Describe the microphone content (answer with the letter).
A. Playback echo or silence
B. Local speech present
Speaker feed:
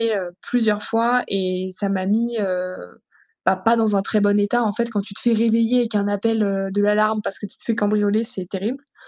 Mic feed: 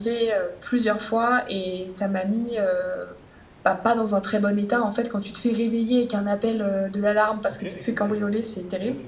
B